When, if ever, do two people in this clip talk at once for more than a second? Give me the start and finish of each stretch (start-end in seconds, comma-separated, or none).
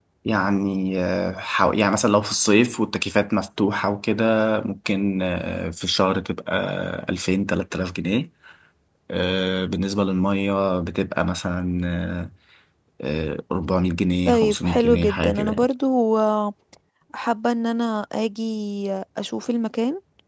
14.2-15.7